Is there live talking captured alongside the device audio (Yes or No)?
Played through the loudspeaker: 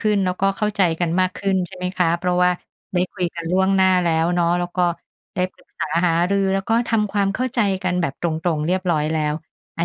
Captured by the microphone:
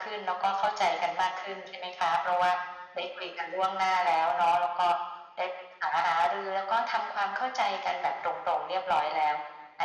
No